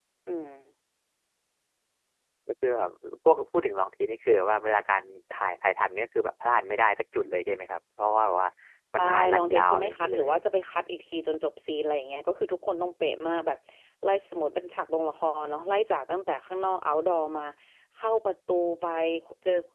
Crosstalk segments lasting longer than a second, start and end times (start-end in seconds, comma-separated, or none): 9.0-10.3